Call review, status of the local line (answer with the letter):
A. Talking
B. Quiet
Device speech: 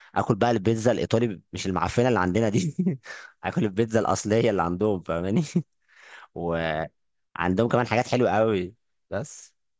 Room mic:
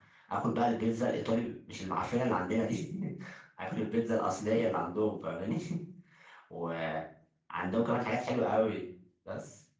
B